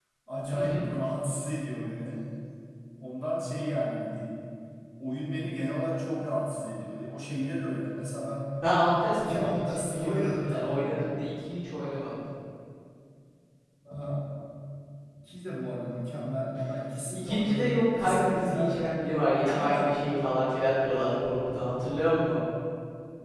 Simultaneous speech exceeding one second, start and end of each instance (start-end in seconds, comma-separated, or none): 9.2-11.1, 17.1-19.0